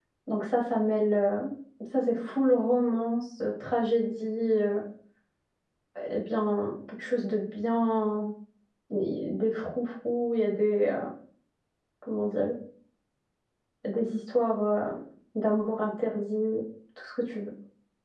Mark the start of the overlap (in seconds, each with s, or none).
none